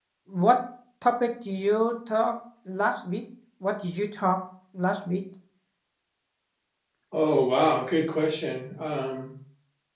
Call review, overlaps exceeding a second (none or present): none